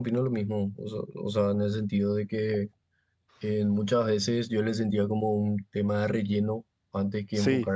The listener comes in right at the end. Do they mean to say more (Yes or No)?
No